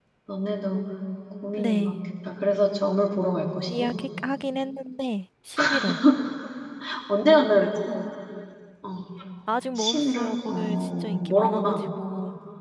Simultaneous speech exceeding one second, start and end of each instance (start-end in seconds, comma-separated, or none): 9.8-11.9